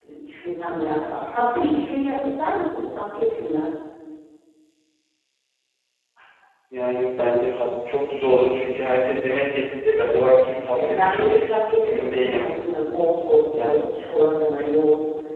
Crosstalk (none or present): present